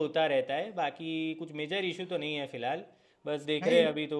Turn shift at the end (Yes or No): No